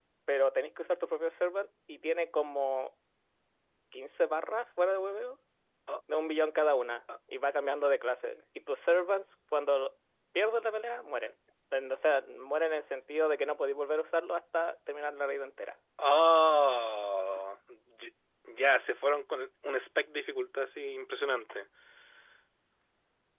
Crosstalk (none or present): none